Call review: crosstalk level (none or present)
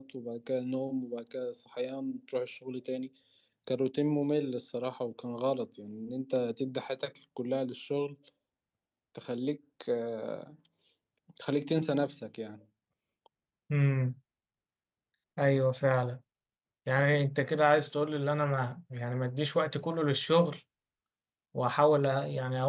none